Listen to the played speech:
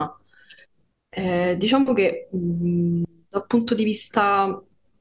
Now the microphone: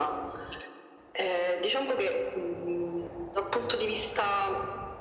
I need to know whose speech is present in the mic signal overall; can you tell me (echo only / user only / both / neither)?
echo only